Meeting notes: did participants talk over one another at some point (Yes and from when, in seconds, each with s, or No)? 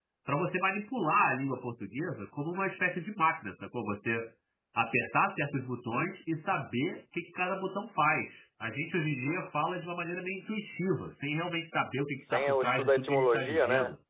Yes, from 12.2 s